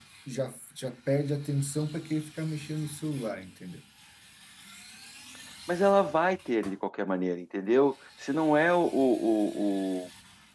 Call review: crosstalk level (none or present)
none